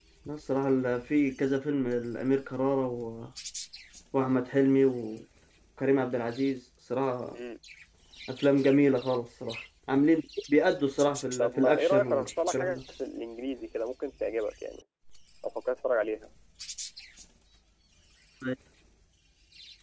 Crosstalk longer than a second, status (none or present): present